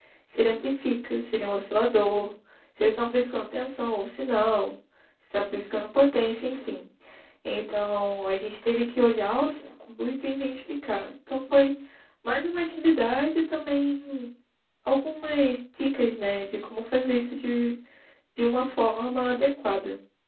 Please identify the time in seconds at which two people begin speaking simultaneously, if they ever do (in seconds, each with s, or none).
none